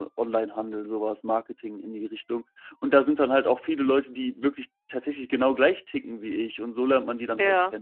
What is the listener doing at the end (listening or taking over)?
taking over